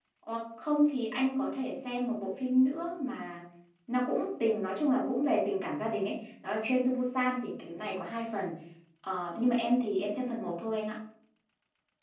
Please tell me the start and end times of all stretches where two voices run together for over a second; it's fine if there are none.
none

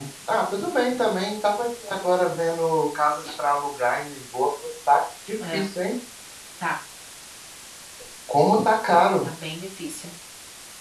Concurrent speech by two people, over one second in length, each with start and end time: none

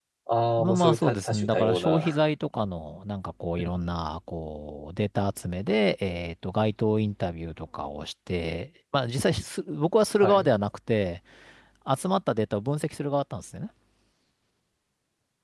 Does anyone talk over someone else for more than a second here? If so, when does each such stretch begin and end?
0.6-2.1

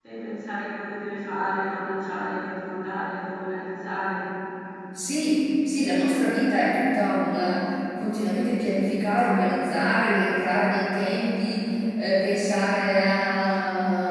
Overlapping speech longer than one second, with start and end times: none

